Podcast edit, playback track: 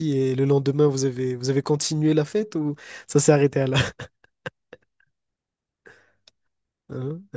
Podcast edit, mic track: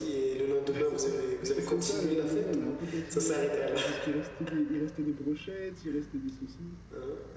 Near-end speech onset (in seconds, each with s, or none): 0.7 s